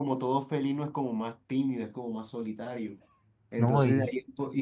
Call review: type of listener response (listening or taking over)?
listening